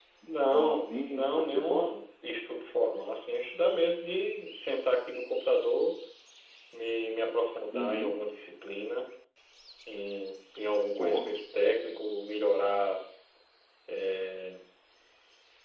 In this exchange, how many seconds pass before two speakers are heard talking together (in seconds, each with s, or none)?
0.5 s